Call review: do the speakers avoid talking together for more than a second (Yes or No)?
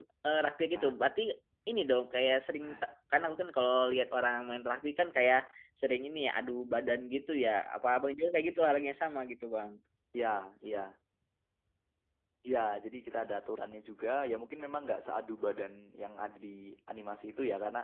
Yes